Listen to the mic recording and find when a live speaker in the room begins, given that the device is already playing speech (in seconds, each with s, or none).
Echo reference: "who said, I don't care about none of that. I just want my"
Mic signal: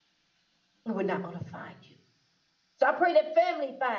0.8 s